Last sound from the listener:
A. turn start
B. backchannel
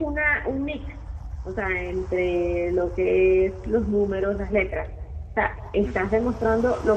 B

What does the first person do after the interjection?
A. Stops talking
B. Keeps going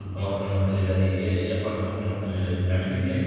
A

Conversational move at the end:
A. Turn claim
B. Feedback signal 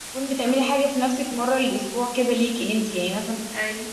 B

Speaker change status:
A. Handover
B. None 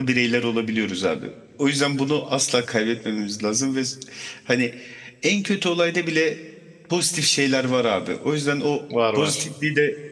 B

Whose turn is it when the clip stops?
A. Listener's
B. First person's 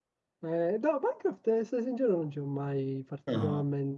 B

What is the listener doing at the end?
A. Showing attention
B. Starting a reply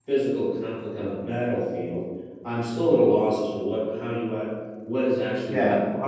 B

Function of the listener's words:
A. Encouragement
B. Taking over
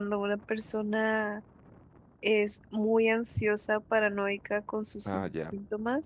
A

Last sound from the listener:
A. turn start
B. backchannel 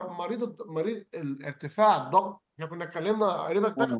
A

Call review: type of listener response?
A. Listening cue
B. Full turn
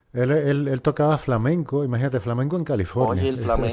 B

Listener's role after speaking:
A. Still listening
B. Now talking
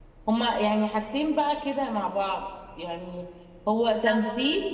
A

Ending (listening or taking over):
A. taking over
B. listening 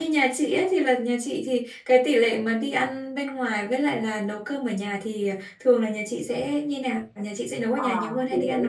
A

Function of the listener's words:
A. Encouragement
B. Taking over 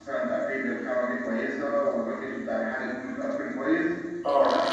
A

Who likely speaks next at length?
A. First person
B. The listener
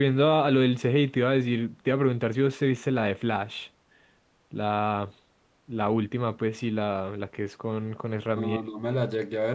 B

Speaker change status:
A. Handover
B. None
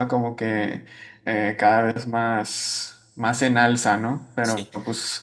B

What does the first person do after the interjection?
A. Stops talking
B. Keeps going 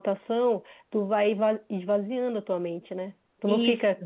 B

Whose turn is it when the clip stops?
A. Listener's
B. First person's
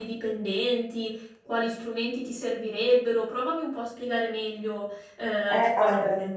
A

